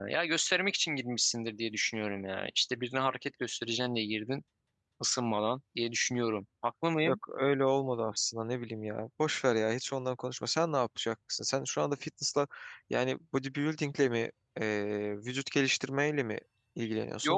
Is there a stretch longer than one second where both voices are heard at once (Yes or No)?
No